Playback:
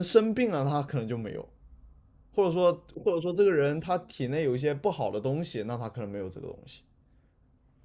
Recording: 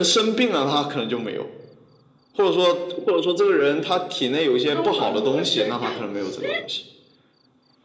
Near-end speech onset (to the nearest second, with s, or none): 5 s